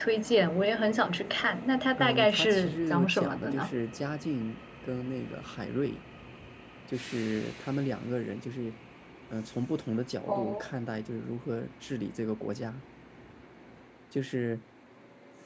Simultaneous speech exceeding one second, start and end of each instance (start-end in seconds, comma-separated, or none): 2.0-3.7